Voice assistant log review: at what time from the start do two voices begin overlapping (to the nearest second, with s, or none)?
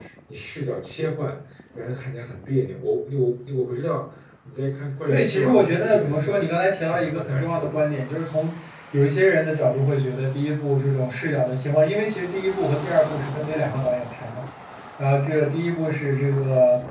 5 s